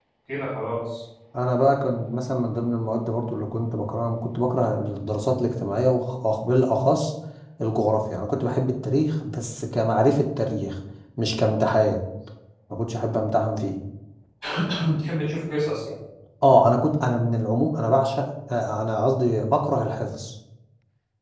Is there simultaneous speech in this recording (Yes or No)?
No